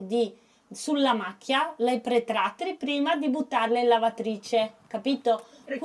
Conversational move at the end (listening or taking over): listening